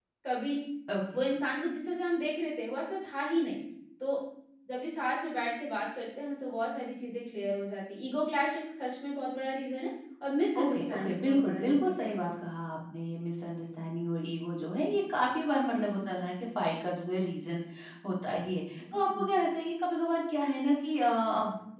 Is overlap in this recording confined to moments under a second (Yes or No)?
No